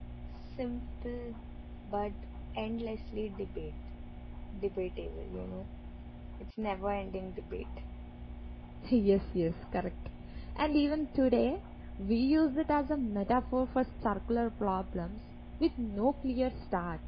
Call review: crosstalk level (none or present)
none